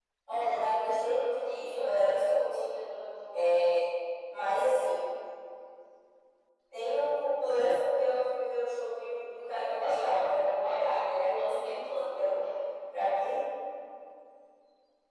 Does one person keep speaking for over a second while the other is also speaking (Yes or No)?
Yes